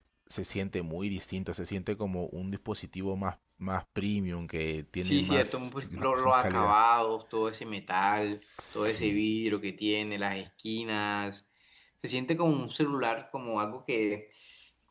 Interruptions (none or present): present